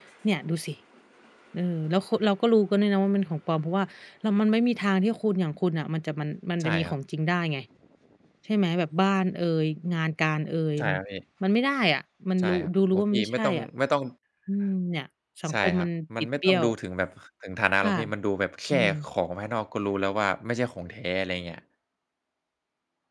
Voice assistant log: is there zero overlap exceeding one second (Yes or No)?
No